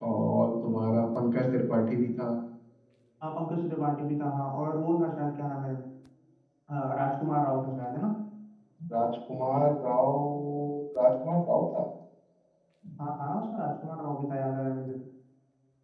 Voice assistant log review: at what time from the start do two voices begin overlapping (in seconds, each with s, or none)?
none